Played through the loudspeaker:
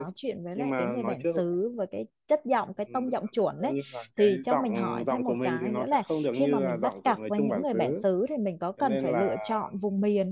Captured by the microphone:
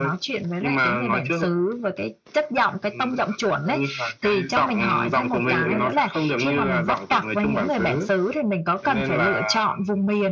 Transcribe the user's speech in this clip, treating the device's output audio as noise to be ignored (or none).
không biết chỗ bạn